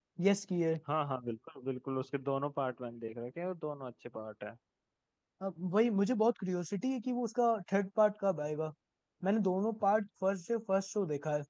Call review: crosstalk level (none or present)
none